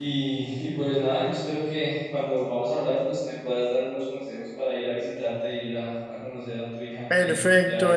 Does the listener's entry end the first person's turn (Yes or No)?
Yes